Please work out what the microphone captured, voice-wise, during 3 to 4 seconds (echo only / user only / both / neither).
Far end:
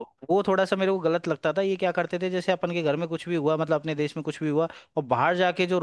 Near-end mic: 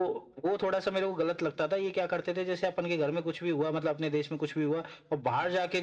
echo only